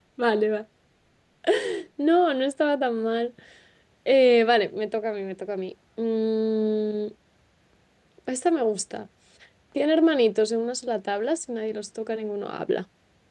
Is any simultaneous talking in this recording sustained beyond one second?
No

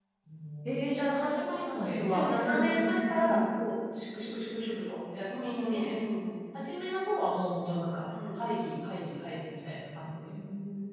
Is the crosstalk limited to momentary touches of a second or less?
No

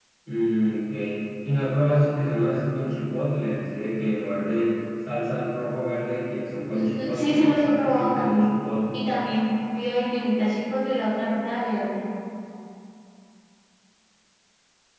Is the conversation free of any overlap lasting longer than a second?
No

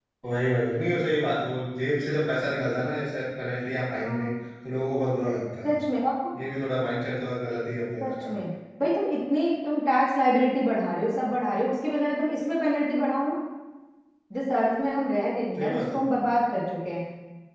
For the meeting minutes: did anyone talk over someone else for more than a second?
No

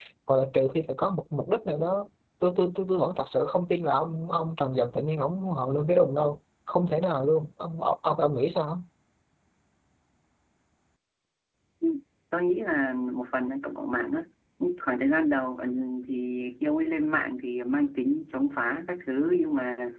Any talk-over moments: No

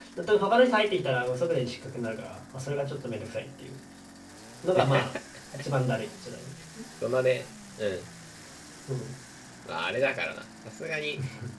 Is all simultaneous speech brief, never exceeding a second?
Yes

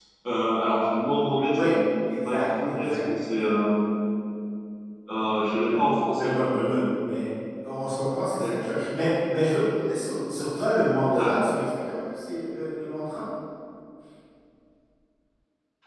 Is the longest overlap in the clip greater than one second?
Yes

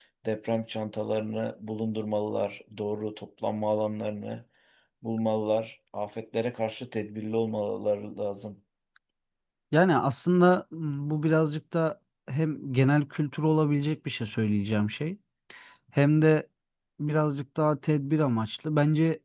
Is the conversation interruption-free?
Yes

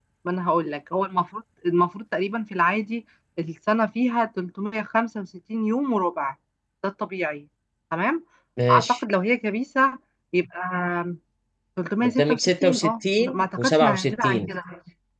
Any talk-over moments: Yes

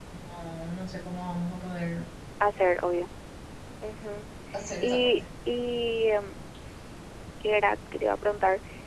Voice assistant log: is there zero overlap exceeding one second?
Yes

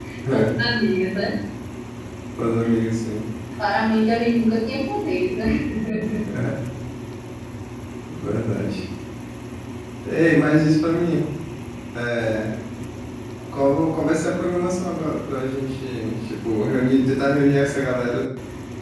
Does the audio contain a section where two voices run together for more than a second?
No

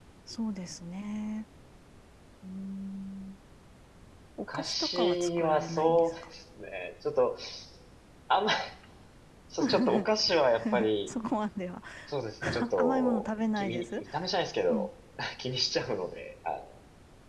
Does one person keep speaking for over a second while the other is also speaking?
Yes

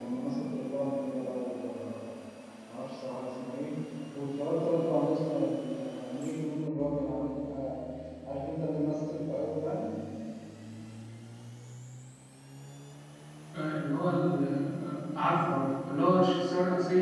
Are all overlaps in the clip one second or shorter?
Yes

